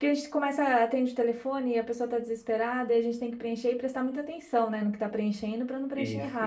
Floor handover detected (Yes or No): No